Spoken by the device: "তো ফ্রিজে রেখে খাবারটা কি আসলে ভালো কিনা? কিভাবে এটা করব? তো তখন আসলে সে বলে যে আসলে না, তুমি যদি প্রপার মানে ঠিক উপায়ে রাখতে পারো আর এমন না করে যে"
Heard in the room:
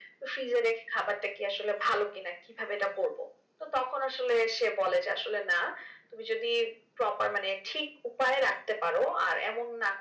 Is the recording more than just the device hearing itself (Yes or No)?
No